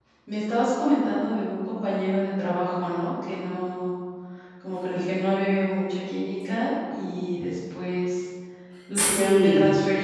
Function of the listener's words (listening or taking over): listening